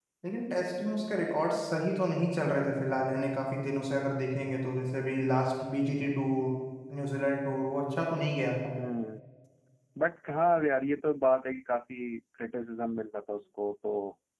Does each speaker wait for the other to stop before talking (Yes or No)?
Yes